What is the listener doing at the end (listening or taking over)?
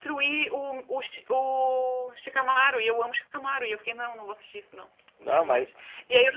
listening